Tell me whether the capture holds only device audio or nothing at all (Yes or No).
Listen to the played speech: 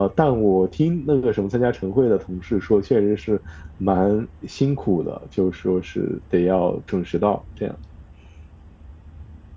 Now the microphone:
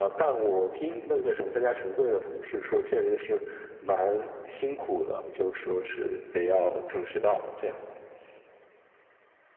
Yes